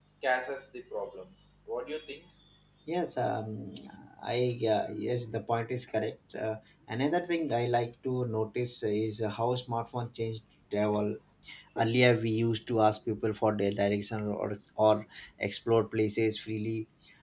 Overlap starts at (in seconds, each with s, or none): none